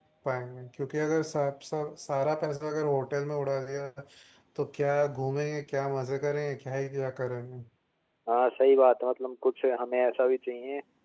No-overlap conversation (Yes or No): Yes